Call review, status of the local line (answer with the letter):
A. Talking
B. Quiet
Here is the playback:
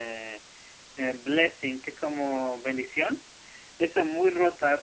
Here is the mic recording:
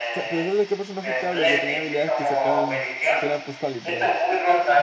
A